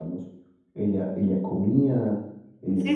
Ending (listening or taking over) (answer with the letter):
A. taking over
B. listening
A